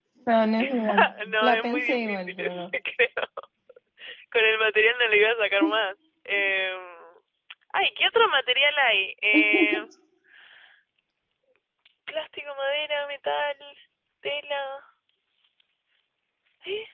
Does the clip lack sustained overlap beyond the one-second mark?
No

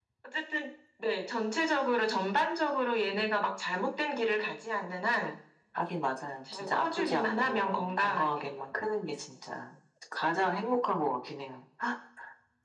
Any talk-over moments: Yes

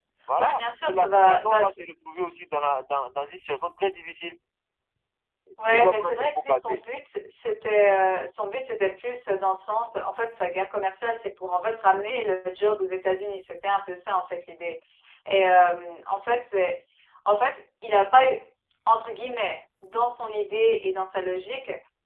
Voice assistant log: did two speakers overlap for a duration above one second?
Yes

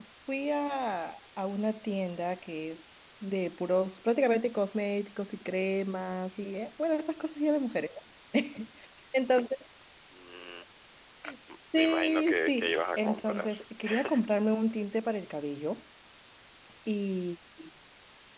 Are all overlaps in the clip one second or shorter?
No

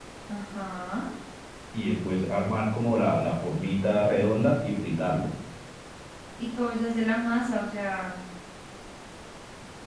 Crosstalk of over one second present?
No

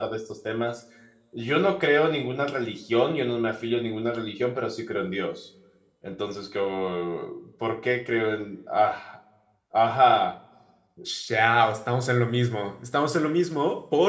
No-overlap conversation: Yes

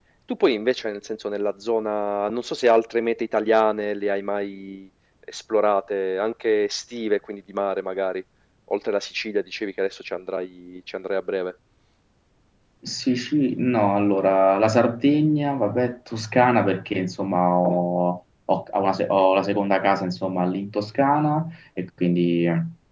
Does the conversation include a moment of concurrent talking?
No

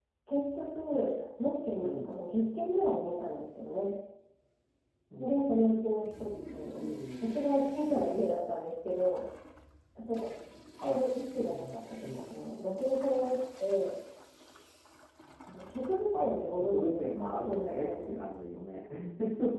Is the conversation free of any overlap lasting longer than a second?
No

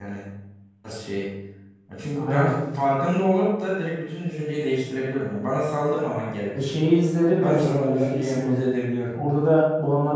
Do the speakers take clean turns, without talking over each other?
No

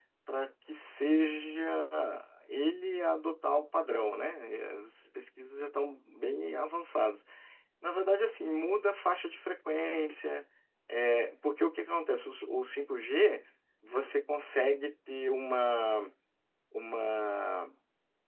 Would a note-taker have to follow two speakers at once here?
No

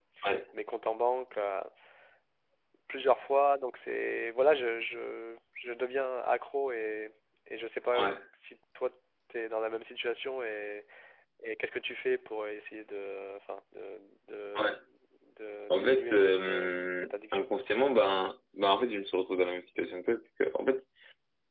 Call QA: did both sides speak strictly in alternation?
No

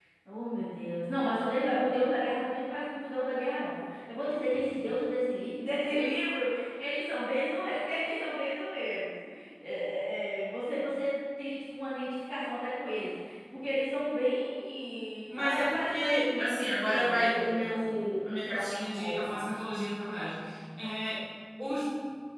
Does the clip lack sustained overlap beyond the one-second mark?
No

